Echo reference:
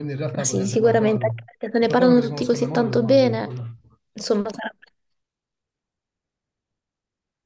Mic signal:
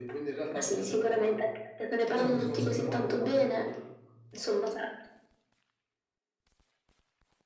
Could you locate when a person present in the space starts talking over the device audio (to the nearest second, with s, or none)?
2 s